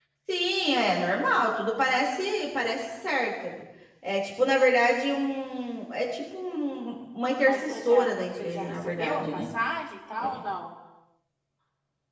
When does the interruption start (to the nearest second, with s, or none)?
7 s